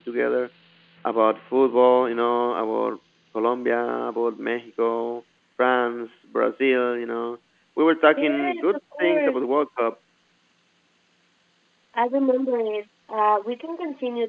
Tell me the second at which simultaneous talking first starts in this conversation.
8.2 s

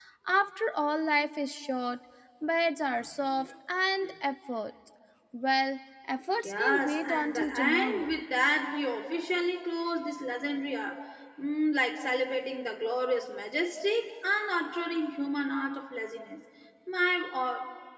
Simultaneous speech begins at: 6.4 s

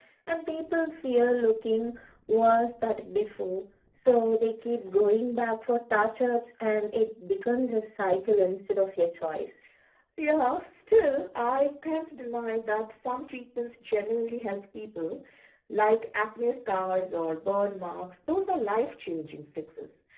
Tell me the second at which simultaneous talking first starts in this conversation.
none

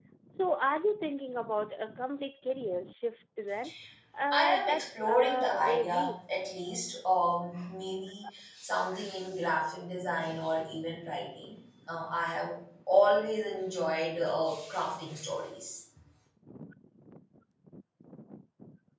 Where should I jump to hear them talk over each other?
4.3 s

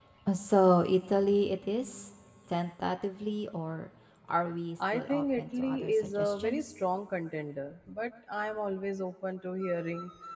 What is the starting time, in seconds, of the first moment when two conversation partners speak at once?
4.9 s

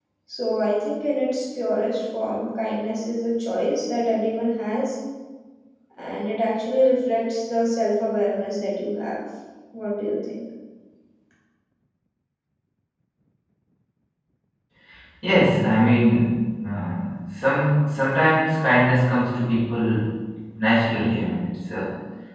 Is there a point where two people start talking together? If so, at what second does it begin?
none

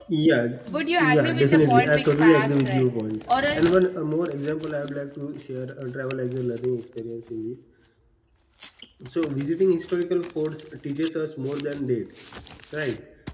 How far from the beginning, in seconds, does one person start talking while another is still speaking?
1.0 s

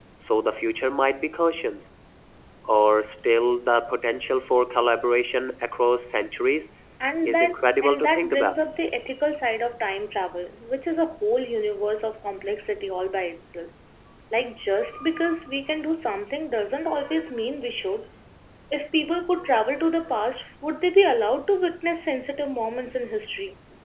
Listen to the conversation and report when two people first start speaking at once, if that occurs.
7.2 s

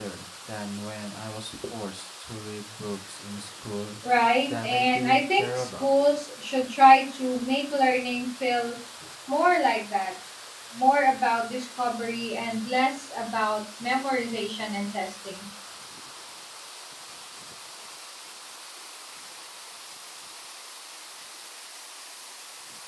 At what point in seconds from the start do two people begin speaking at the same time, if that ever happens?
4.5 s

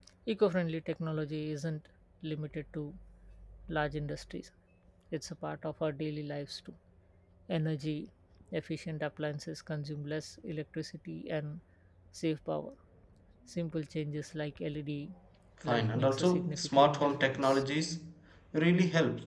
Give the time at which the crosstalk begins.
15.6 s

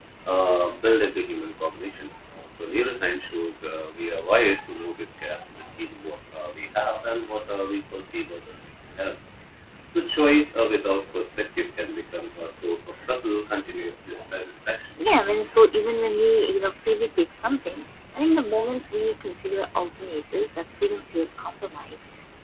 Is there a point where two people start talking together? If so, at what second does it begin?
none

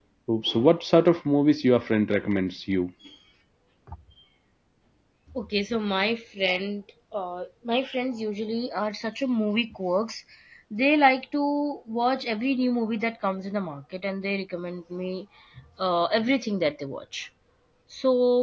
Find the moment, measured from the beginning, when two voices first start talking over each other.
none

